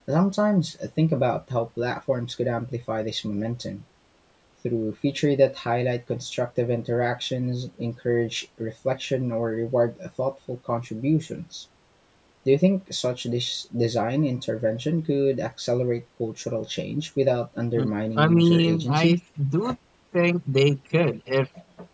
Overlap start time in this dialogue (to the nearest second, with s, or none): 18 s